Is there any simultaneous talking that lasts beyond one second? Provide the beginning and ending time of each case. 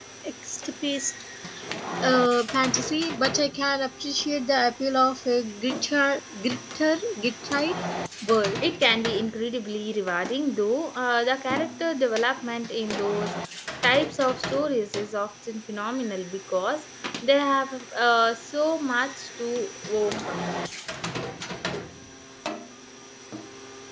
none

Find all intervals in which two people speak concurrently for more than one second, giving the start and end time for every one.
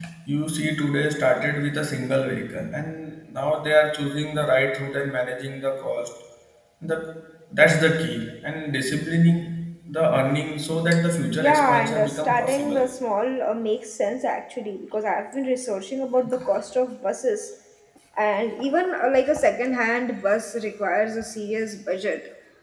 11.4-12.8

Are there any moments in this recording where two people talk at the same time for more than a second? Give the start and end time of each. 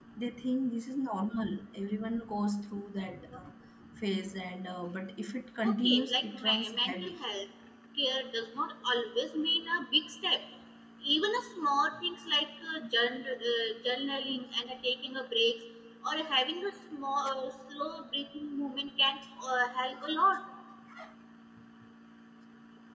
5.6-7.1

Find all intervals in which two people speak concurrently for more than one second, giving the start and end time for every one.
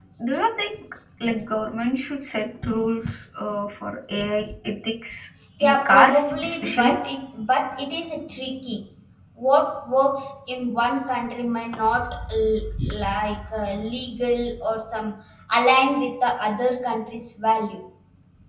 5.6-6.9

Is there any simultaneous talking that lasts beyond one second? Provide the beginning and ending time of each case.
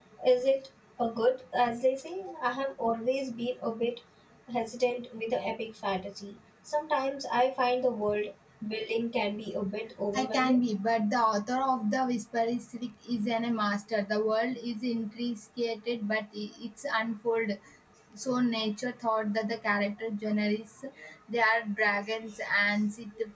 none

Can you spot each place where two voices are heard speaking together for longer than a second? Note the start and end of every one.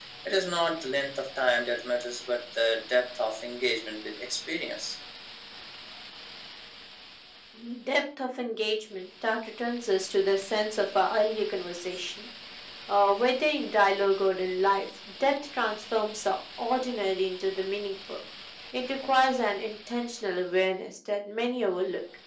none

